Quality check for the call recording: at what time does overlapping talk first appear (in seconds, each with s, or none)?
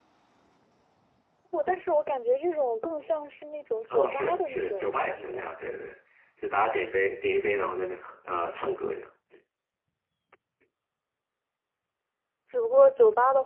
3.9 s